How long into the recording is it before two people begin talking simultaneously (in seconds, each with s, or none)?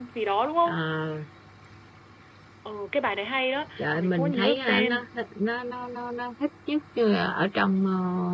3.8 s